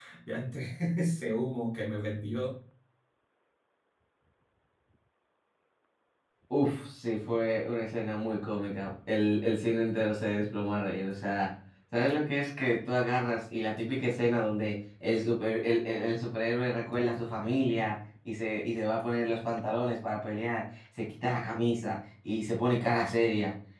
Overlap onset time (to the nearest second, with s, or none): none